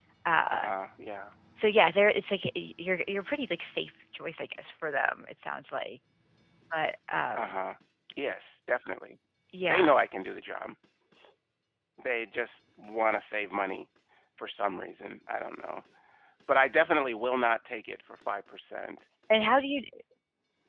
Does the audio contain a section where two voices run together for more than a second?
No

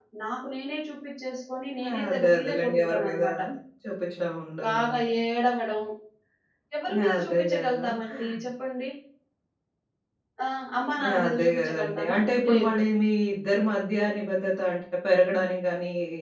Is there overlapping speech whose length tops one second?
Yes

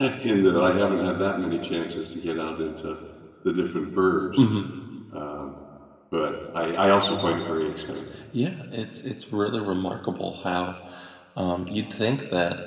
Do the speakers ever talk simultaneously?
No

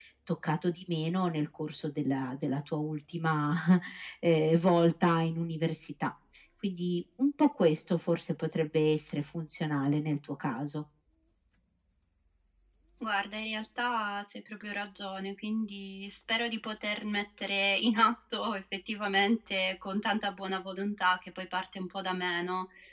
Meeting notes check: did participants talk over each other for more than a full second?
No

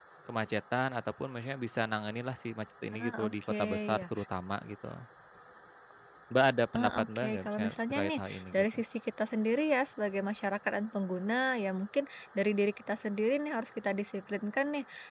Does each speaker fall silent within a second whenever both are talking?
No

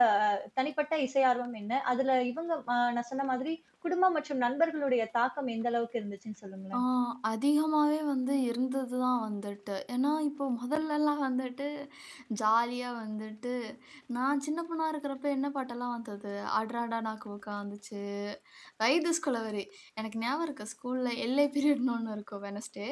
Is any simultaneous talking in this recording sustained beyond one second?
No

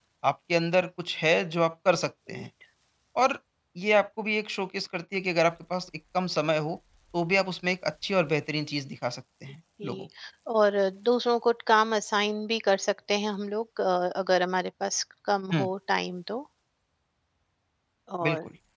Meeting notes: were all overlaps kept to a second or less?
Yes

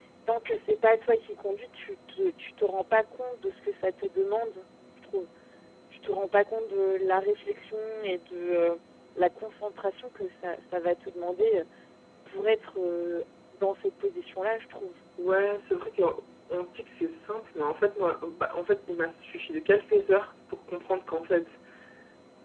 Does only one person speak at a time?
Yes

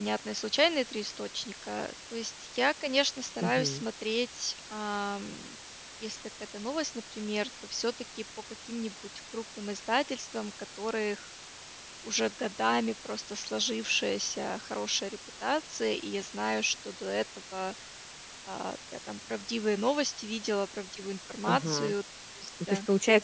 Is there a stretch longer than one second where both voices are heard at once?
No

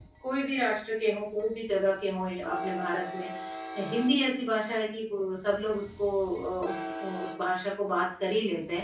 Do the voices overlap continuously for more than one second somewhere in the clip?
No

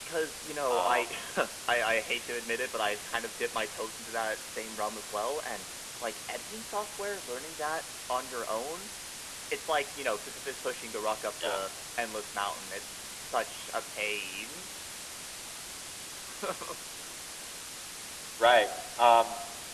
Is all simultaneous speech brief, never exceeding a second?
Yes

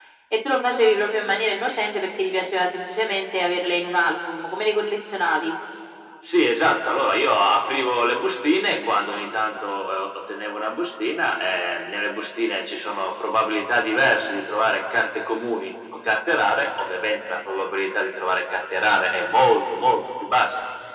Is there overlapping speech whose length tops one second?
No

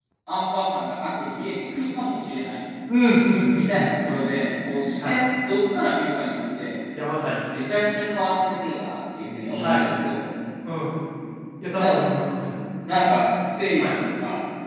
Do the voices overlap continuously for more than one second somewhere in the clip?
No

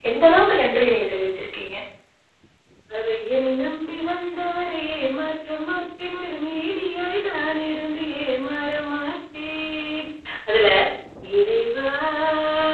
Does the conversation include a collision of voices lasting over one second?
No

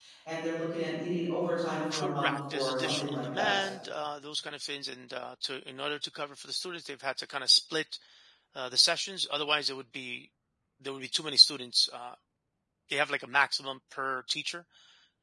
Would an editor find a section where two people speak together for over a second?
Yes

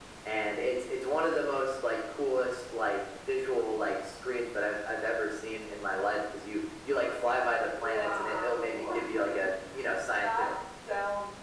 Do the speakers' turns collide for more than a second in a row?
Yes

